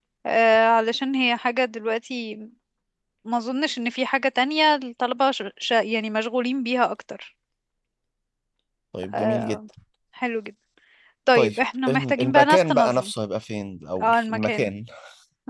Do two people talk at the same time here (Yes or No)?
Yes